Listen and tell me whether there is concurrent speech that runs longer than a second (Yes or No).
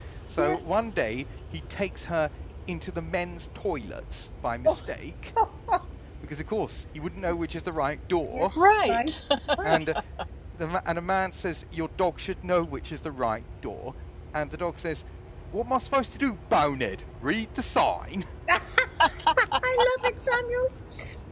No